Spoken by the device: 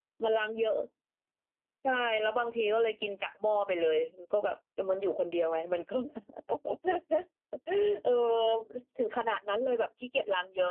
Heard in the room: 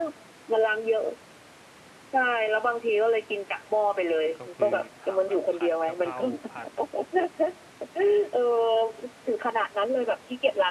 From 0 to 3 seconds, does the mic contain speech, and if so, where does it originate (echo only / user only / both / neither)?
echo only